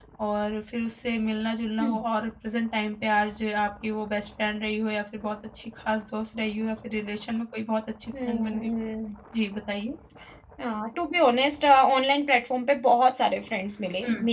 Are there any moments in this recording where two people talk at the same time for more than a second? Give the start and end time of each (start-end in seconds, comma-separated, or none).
none